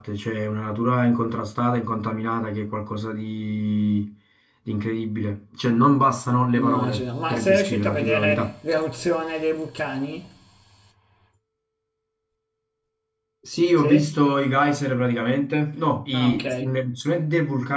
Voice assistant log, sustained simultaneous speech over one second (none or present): present